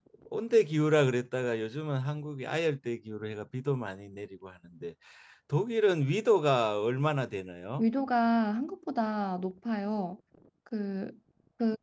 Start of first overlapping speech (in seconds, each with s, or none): none